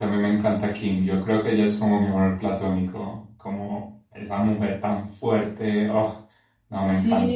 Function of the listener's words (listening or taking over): taking over